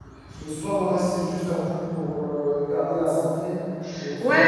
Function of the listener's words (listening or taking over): taking over